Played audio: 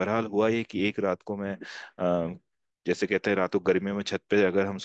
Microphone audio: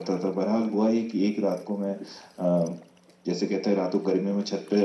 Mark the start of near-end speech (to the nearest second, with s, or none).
none